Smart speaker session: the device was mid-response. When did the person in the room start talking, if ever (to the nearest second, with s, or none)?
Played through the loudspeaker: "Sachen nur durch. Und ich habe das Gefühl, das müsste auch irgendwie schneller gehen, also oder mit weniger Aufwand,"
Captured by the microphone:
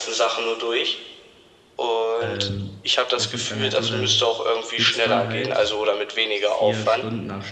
2 s